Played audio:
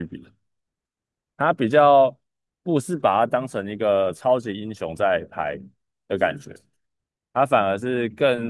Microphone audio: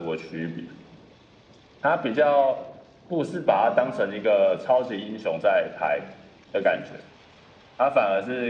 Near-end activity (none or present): present